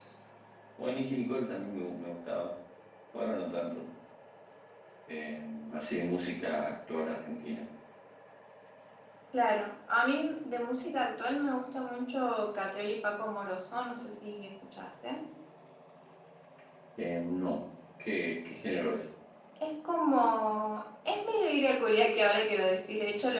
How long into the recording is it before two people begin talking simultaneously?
none

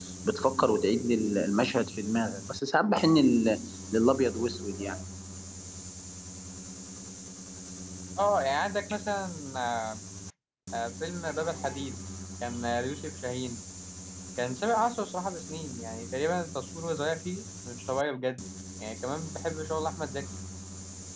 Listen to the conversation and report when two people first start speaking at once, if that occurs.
none

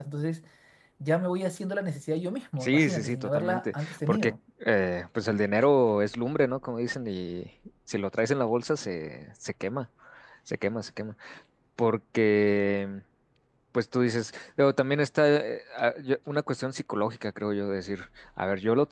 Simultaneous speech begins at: 3 s

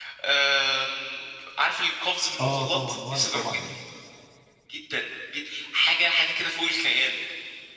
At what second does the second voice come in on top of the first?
2 s

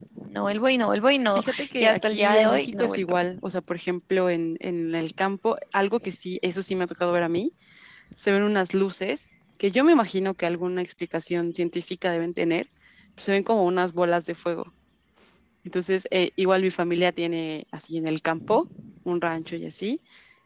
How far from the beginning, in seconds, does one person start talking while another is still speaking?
1 s

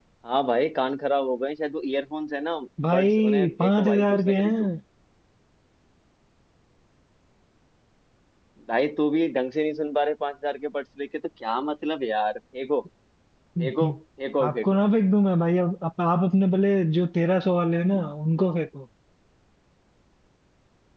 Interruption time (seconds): 3 s

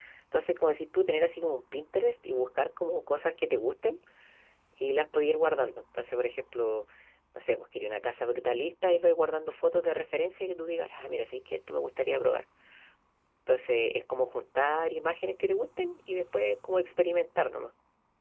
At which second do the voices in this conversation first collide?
none

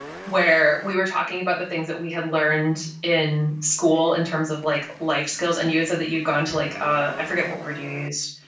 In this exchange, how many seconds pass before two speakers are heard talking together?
none

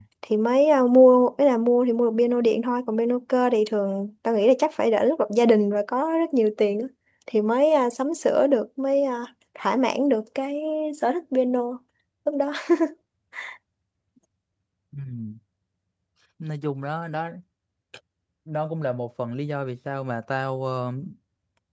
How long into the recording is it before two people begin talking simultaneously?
none

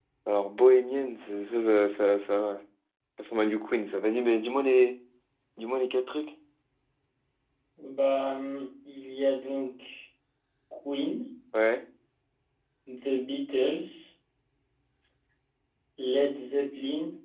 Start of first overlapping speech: none

